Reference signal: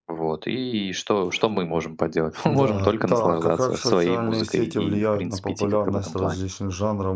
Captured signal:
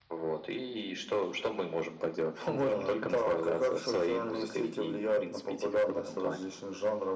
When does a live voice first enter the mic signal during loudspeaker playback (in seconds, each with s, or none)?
none